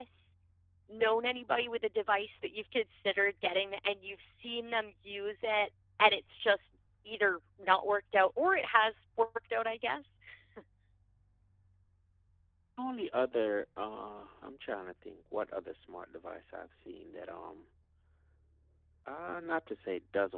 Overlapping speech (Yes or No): No